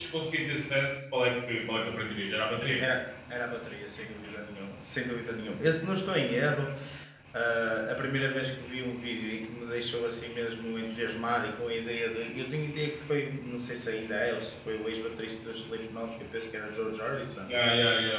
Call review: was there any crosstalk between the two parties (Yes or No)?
No